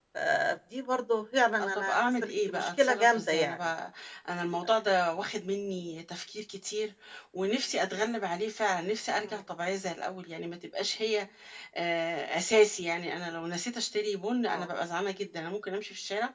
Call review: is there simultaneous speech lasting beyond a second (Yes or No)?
Yes